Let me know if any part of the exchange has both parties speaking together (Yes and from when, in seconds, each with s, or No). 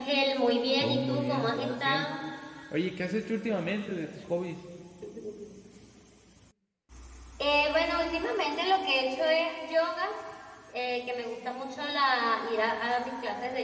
Yes, from 0.8 s